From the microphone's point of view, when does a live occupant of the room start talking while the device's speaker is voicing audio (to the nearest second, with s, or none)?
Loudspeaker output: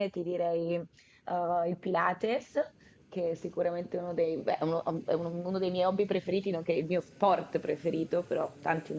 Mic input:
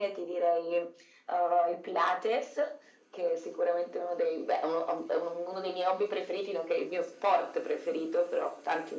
none